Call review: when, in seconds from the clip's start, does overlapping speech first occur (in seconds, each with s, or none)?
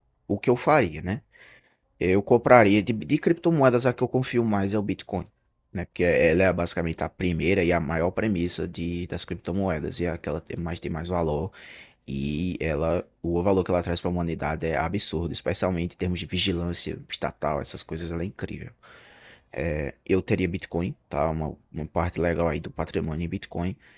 none